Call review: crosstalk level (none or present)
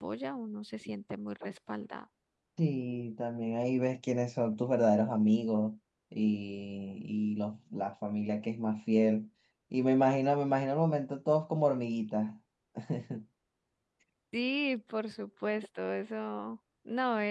none